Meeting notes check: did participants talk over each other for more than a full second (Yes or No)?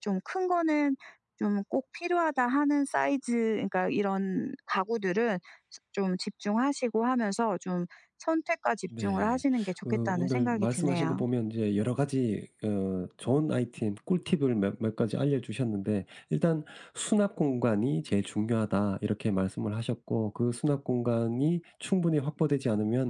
Yes